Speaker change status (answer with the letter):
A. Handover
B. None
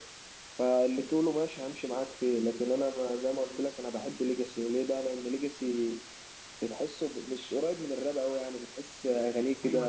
A